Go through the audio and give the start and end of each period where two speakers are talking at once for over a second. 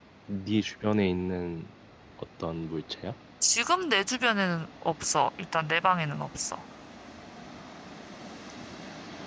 none

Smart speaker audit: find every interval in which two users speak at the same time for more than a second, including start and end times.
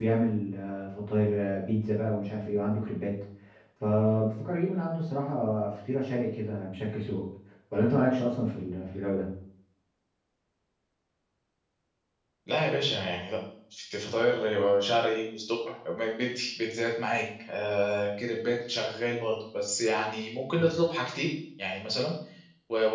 none

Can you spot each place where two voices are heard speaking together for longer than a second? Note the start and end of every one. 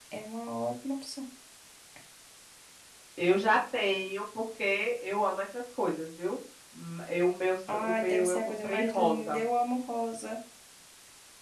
7.7-9.4

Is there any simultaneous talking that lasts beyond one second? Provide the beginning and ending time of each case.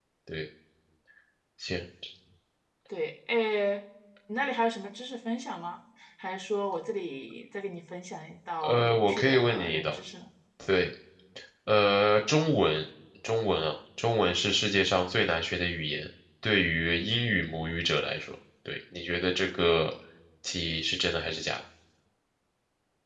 8.6-9.9

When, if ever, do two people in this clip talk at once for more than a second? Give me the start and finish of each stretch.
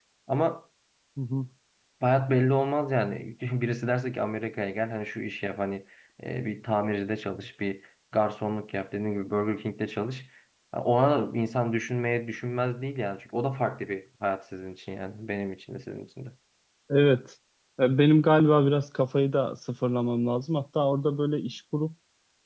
none

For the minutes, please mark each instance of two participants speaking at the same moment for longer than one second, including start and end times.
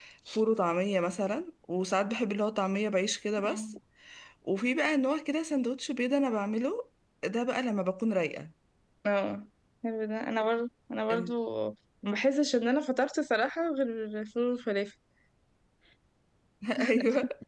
none

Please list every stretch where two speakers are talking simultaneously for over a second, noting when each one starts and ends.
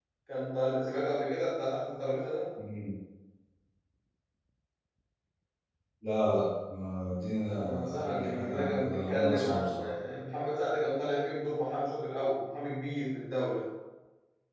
7.5-9.8

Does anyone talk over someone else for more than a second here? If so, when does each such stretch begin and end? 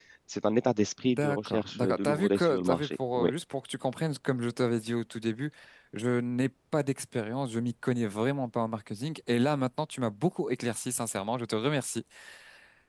1.0-3.3

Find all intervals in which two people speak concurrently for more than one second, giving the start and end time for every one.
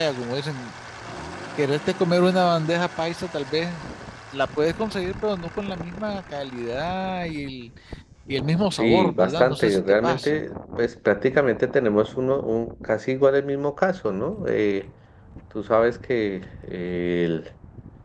8.8-10.4

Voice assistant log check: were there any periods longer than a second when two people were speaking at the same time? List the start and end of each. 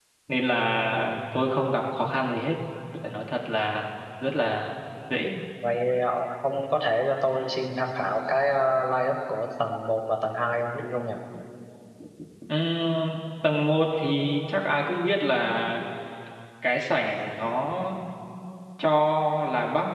none

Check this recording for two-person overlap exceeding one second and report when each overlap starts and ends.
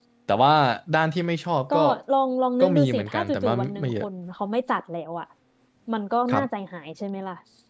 2.6-4.1

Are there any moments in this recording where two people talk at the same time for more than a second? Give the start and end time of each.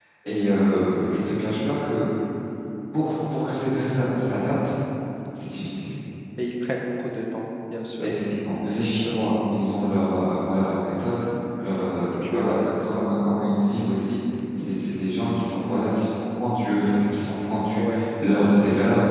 11.7-13.1

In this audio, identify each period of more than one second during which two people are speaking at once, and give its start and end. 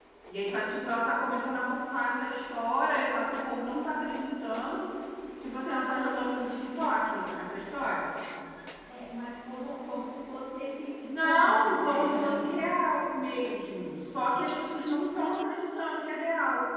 11.0-12.7

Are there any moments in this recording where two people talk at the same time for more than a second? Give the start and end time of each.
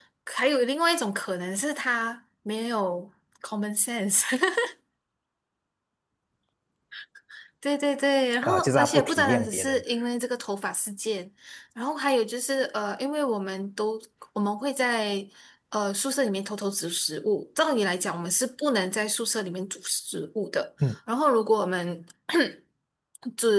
8.4-9.8

